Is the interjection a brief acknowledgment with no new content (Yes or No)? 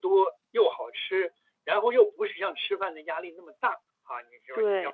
Yes